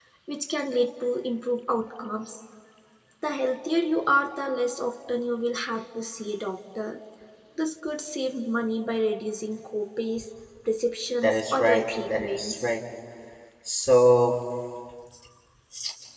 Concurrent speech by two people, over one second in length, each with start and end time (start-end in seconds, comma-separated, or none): 11.2-12.8